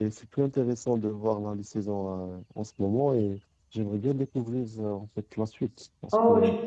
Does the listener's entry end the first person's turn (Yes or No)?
Yes